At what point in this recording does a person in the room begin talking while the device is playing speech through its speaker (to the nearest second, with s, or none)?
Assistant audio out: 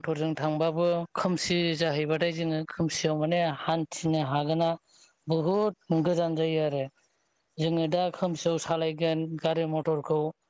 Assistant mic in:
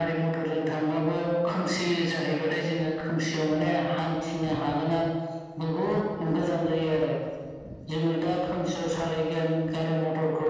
none